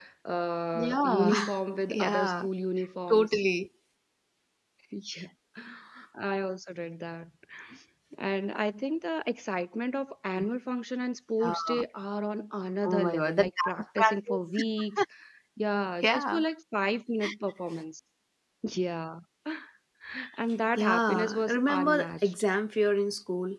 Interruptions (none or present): present